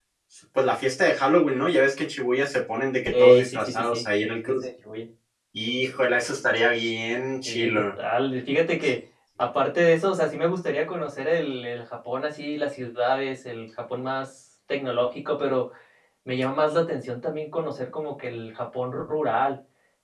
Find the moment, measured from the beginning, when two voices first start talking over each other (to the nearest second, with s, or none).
3 s